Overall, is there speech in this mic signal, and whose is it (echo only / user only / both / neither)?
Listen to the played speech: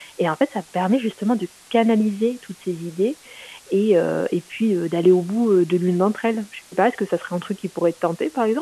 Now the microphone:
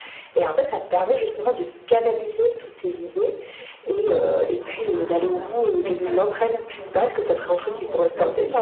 both